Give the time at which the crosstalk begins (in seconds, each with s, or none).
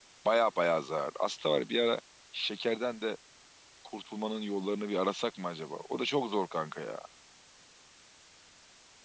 none